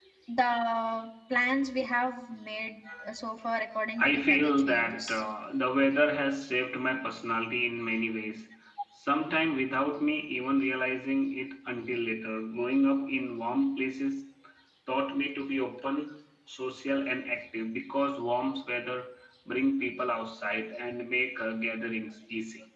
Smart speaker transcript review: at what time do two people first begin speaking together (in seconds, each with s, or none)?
4.0 s